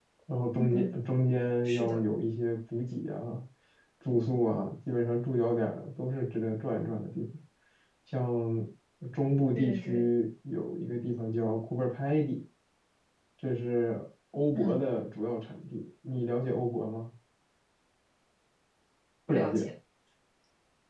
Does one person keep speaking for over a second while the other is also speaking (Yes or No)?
No